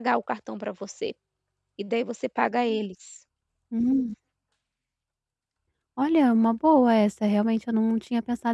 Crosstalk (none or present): none